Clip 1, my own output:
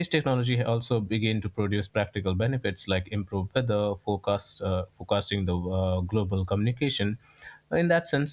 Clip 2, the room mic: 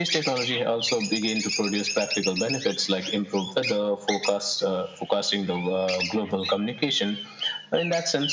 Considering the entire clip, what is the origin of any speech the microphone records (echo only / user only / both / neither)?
echo only